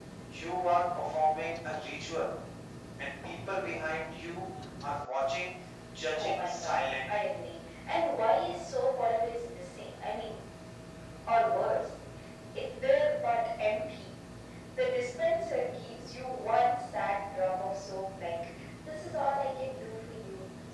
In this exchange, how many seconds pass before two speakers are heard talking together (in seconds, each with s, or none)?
6.2 s